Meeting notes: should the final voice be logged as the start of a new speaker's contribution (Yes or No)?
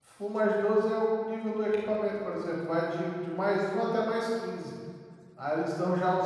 No